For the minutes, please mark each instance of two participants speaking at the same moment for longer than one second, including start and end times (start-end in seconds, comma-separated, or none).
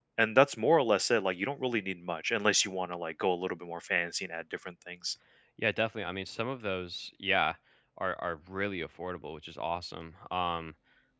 none